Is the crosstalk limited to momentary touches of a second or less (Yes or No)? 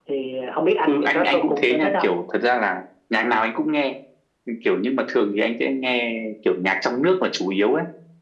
No